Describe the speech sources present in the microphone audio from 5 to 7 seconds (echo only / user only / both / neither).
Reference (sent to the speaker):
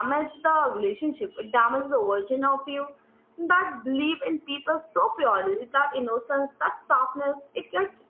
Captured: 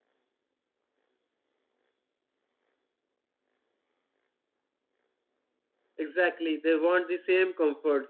user only